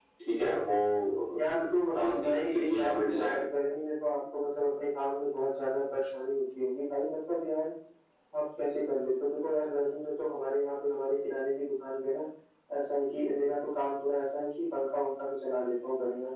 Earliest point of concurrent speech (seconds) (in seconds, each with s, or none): 1.9 s